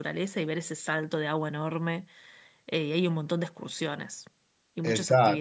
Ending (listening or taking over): taking over